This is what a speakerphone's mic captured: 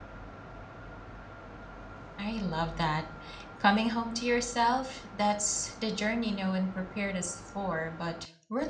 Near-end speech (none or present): present